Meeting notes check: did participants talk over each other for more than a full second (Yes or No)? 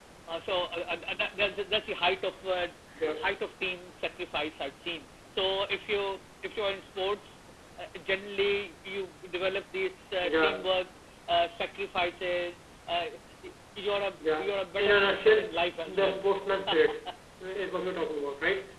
Yes